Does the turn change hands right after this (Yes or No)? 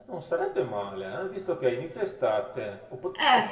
No